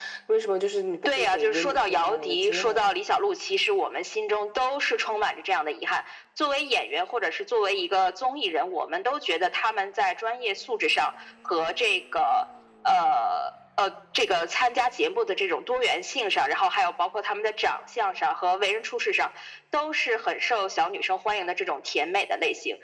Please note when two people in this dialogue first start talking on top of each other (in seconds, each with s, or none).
1.1 s